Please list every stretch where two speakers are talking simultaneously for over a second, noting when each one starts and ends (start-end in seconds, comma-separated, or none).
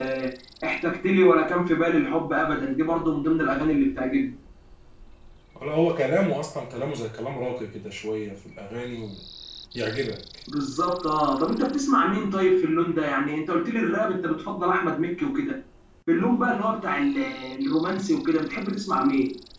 none